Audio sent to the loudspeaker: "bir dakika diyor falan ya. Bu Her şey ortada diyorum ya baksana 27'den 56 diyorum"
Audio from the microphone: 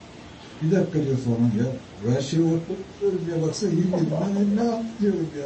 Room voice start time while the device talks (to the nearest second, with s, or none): 4 s